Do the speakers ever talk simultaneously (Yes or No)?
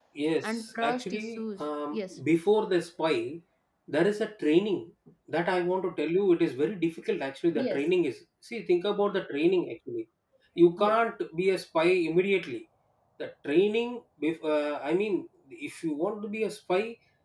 Yes